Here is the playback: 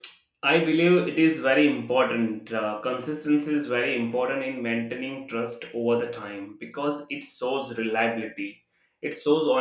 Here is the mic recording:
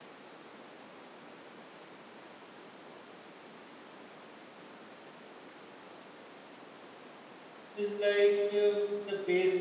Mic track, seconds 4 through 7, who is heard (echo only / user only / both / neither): neither